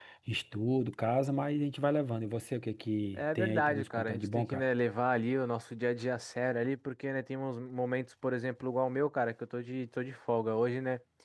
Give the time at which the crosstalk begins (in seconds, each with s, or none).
3.1 s